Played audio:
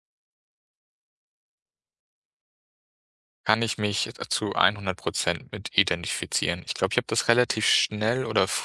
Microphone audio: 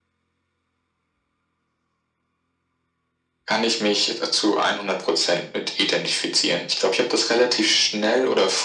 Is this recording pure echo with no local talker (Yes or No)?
Yes